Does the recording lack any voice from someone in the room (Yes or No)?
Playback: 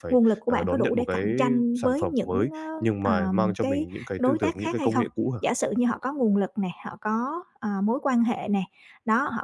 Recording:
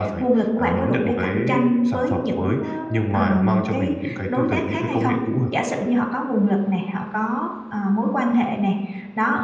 Yes